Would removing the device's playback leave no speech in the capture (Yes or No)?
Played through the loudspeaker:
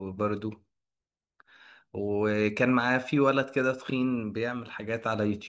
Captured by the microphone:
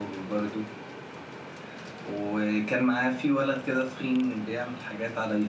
Yes